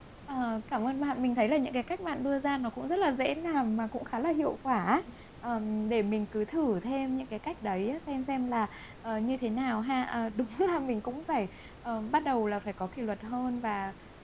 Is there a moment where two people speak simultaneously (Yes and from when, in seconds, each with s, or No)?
No